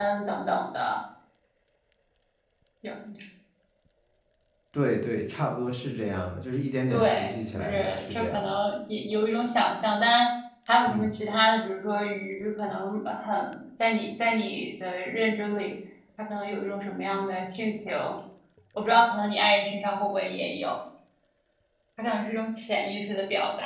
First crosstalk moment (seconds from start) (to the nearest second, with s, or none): 7 s